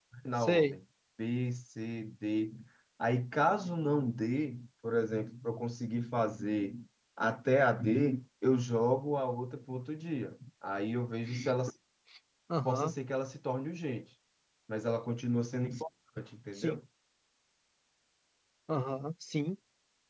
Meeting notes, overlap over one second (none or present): none